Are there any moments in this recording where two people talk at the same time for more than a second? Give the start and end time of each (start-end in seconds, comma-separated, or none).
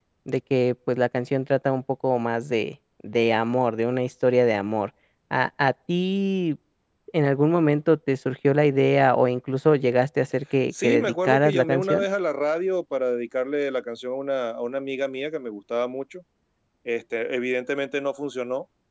10.8-12.0